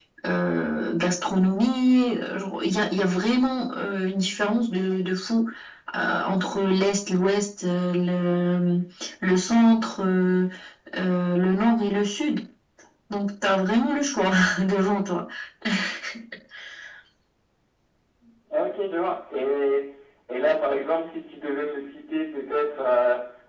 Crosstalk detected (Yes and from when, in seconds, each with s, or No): No